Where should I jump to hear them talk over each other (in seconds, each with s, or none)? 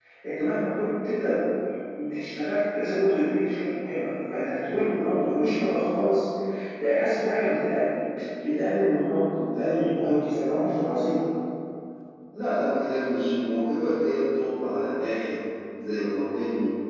none